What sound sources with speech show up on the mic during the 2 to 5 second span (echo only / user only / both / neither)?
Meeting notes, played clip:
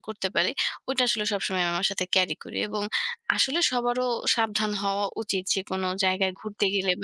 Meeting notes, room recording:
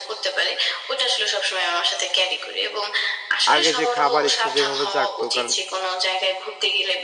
both